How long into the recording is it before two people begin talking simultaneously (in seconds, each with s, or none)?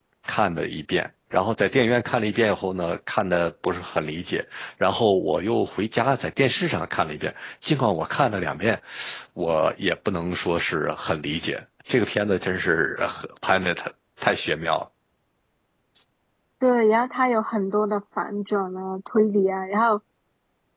none